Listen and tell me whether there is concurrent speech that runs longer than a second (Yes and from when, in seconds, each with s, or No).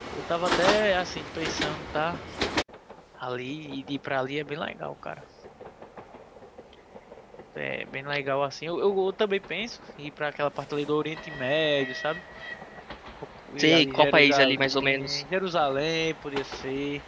Yes, from 13.6 s